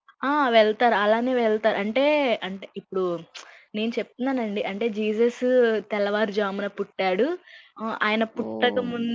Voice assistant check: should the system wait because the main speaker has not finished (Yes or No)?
Yes